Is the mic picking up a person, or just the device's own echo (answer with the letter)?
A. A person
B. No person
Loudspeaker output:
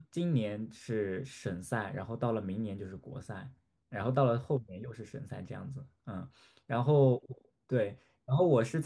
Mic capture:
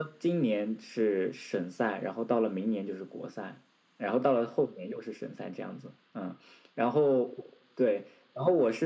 B